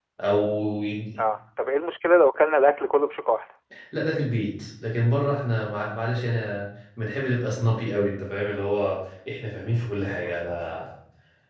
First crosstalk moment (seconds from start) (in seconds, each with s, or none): none